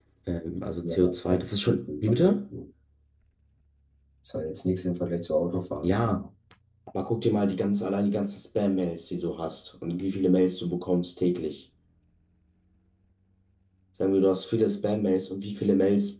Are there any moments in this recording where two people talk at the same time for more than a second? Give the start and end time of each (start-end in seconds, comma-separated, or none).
0.8-2.3